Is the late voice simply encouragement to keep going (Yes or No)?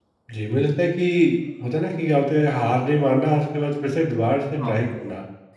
Yes